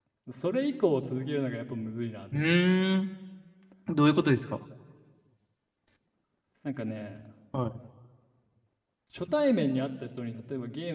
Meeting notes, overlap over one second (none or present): none